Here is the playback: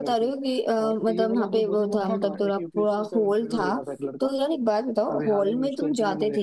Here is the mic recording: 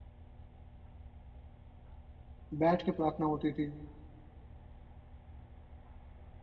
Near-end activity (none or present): present